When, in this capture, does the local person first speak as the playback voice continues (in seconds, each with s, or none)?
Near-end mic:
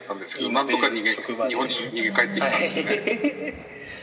2.0 s